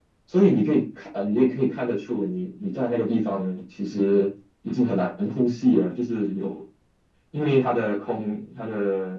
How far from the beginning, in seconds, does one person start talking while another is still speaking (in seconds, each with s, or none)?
none